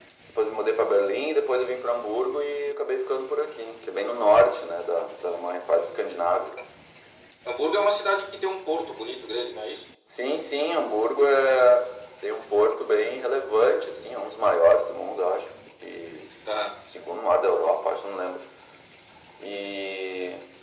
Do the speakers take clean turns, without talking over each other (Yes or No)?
Yes